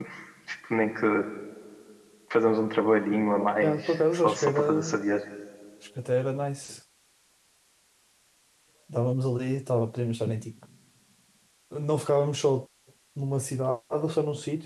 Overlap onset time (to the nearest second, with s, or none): 4 s